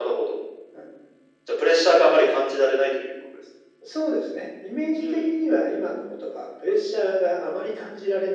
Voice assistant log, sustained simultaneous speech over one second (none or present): none